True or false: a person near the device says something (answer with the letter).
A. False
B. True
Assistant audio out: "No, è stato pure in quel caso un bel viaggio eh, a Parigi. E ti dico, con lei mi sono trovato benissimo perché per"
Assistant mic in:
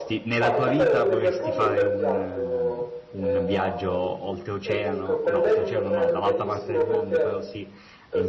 B